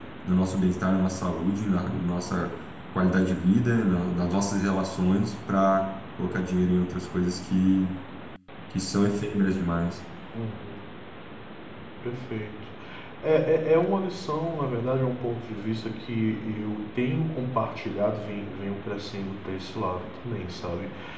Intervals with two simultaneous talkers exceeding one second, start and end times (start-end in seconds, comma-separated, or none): none